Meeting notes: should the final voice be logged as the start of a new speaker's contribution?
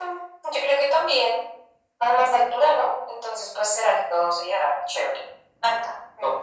Yes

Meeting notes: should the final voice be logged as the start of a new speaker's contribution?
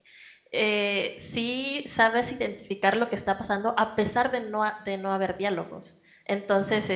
No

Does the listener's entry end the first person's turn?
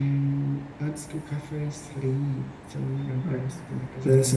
Yes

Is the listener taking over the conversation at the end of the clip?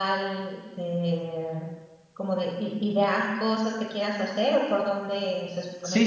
Yes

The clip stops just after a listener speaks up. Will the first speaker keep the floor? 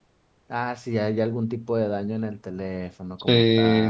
No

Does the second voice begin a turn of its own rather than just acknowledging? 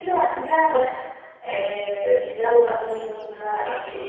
Yes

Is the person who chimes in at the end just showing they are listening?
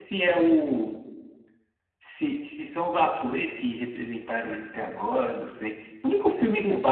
Yes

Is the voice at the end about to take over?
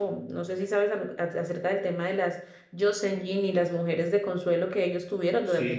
Yes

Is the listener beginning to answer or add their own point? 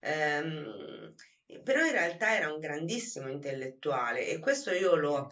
No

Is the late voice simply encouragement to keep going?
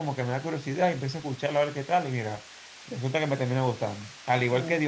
Yes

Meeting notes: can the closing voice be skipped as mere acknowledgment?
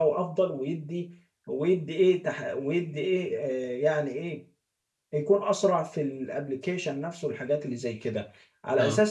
Yes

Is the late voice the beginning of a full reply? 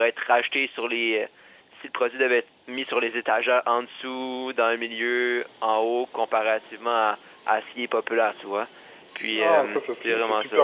Yes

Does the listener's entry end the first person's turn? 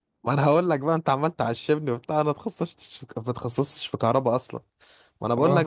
No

